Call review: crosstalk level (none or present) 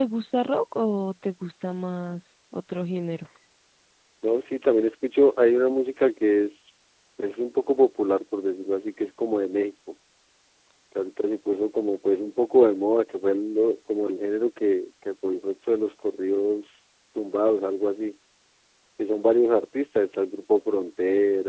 none